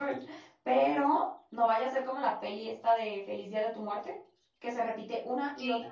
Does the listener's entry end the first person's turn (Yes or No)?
No